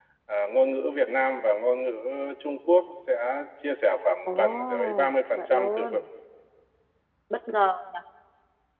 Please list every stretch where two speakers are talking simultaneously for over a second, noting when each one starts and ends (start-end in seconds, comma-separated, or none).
4.3-6.0